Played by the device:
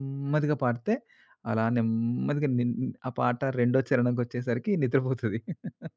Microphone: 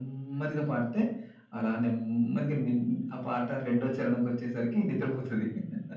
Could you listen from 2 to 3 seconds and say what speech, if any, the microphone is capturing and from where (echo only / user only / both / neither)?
echo only